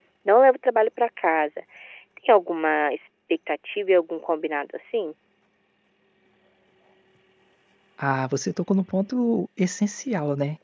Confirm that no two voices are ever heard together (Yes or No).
Yes